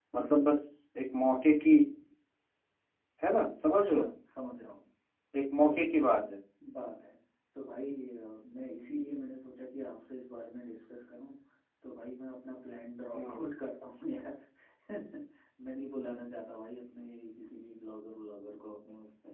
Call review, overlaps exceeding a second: none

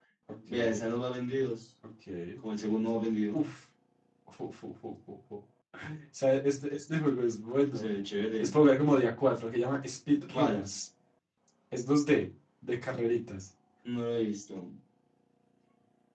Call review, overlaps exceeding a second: none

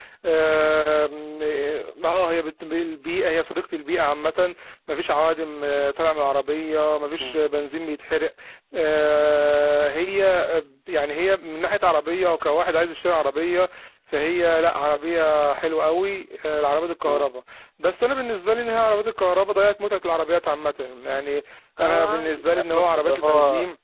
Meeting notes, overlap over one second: present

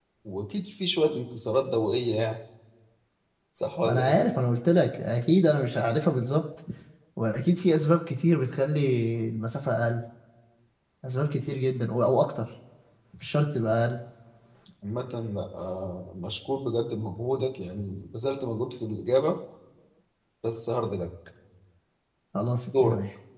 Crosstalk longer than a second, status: none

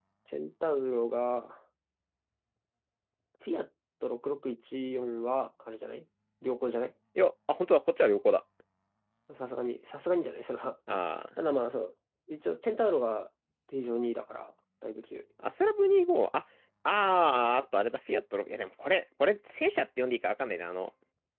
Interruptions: none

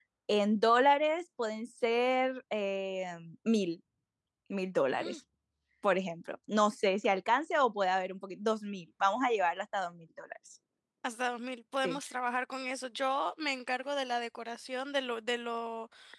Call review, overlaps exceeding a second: none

